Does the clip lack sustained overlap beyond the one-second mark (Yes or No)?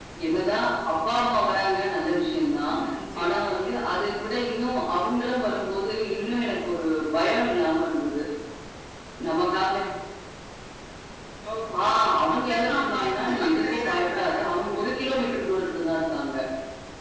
No